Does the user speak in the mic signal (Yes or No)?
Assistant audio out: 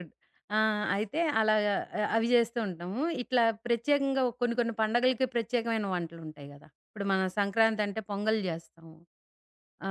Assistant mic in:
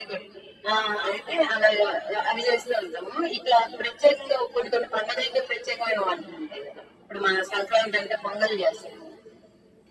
No